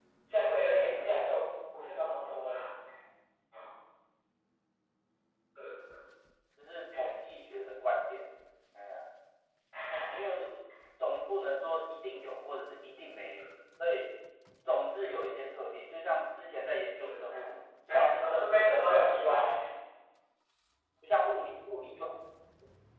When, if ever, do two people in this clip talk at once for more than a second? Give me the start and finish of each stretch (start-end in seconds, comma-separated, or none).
17.9-19.4